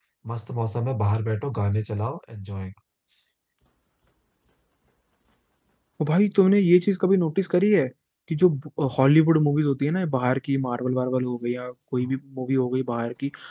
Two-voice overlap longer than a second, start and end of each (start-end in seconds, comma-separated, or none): none